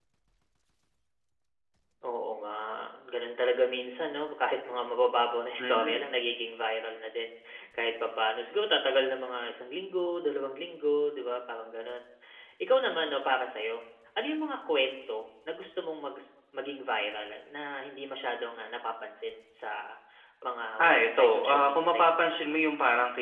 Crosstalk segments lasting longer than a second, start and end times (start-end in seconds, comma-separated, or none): 20.8-22.4